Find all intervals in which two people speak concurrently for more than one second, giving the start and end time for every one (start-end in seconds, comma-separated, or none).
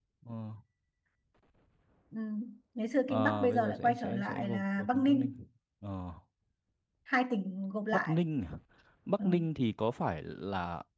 3.1-5.4